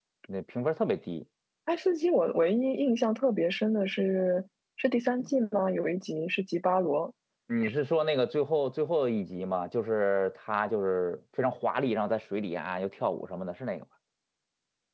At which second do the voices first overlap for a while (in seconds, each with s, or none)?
none